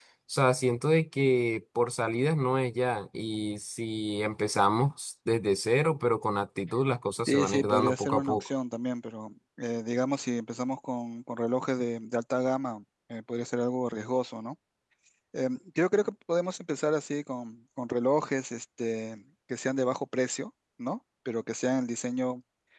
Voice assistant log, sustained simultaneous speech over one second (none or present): present